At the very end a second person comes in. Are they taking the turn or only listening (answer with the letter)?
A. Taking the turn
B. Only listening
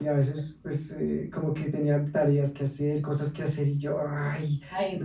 B